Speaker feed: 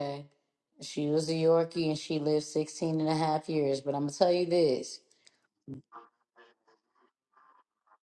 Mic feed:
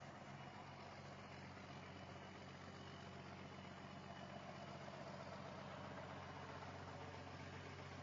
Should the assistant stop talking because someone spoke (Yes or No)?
No